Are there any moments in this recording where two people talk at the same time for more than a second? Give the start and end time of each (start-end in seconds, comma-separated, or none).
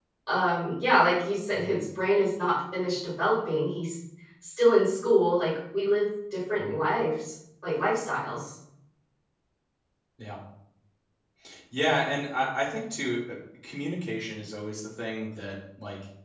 none